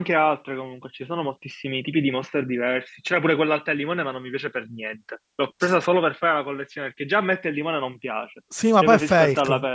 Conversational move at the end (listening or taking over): taking over